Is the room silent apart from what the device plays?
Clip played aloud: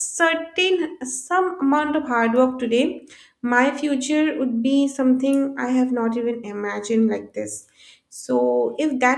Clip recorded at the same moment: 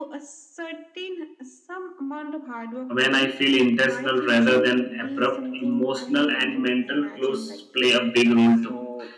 No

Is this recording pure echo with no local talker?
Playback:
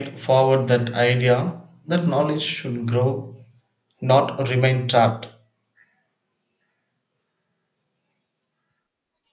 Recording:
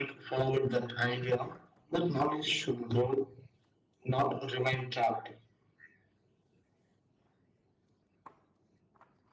Yes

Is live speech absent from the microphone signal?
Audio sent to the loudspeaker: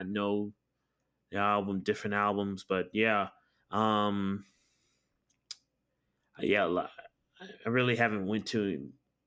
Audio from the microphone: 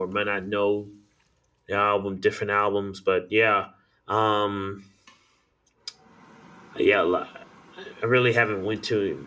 Yes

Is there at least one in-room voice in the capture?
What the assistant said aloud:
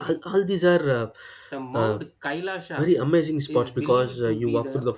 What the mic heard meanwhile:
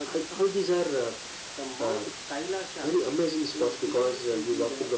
No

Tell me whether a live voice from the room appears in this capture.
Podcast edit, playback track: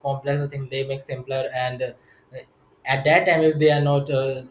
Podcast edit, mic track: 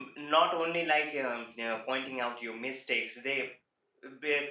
Yes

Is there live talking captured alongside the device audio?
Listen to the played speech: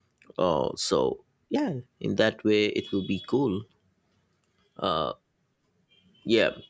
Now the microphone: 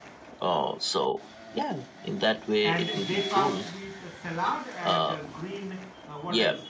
Yes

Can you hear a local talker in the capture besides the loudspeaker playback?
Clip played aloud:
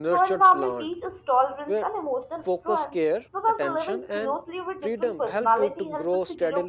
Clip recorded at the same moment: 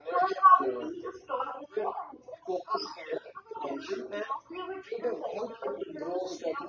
No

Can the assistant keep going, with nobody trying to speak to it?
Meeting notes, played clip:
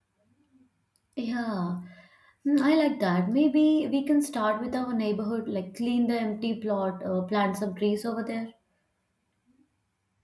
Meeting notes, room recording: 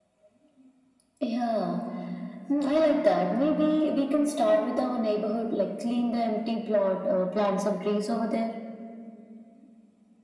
Yes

